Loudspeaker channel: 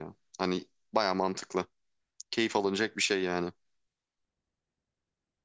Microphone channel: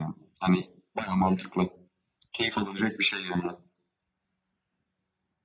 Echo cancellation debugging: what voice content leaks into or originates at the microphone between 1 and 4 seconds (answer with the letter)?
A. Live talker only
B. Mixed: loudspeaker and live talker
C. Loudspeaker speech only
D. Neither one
C